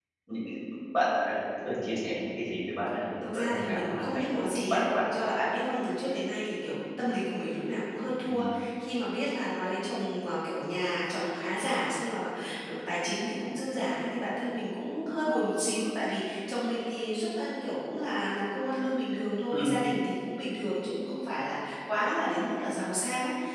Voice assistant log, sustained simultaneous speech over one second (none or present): present